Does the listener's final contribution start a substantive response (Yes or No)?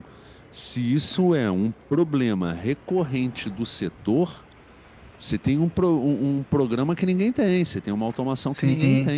Yes